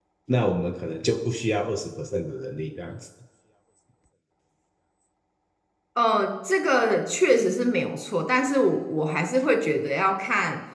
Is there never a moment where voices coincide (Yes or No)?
Yes